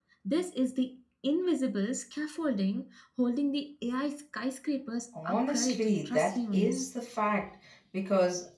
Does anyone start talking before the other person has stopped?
Yes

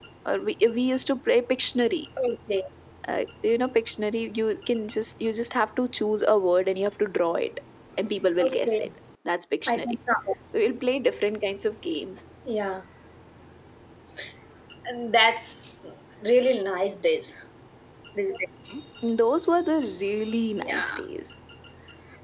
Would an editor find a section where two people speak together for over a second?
No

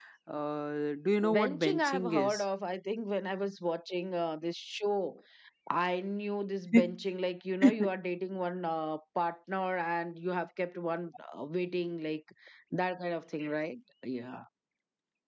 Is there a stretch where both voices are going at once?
Yes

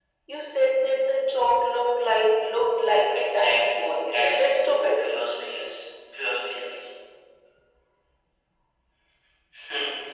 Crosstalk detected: Yes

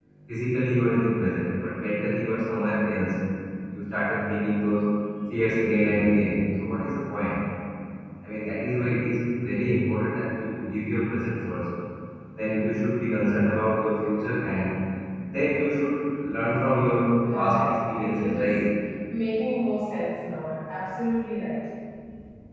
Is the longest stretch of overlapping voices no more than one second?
No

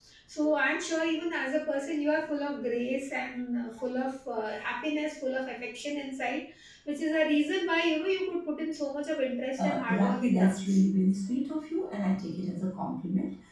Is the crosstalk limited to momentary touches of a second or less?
No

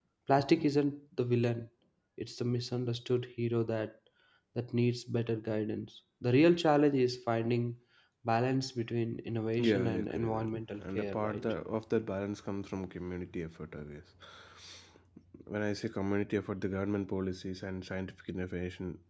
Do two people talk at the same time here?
Yes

